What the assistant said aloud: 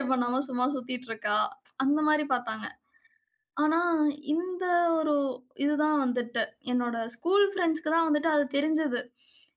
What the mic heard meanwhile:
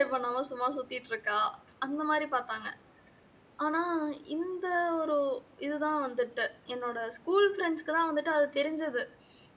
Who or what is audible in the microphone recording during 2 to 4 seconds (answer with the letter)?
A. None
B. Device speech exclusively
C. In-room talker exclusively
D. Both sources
B